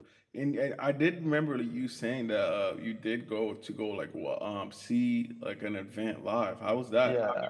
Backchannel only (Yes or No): No